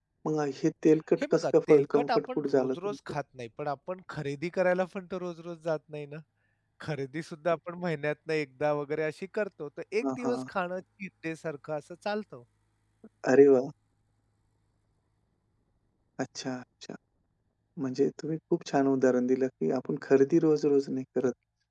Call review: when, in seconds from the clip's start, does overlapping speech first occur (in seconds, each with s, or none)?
1.2 s